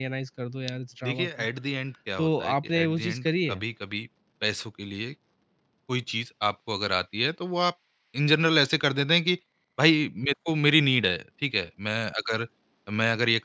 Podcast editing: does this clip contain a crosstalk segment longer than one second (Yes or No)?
Yes